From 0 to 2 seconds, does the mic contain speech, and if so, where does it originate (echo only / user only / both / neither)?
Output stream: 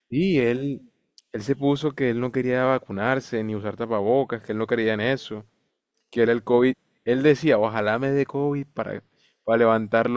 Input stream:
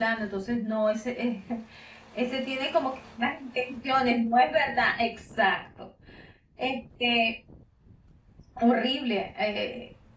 user only